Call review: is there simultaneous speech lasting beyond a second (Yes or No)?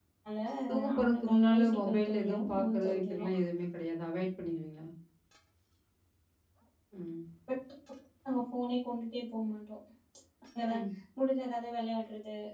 Yes